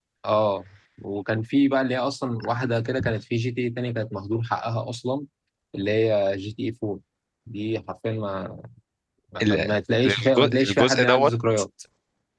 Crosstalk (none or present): present